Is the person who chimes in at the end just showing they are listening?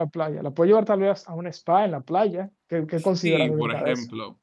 No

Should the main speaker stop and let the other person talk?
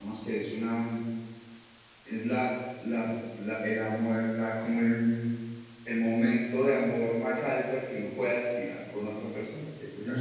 Yes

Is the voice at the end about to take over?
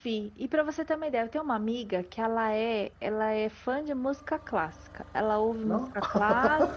No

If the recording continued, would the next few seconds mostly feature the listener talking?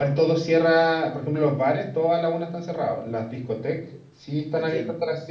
No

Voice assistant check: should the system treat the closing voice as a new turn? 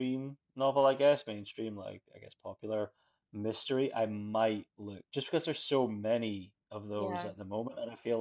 No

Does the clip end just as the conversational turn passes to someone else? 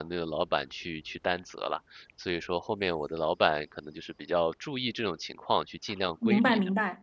Yes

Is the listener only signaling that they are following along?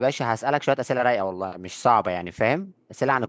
Yes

